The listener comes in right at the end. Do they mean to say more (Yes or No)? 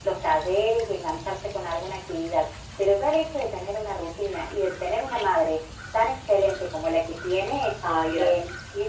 No